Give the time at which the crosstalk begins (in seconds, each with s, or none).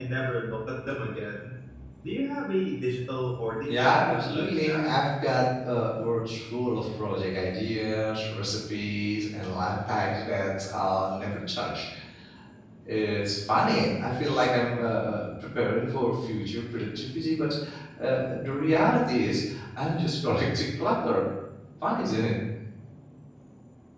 3.6 s